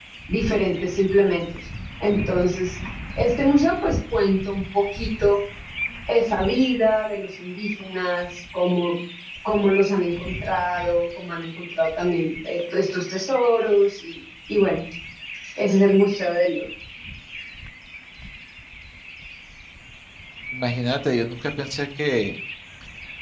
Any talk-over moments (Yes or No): No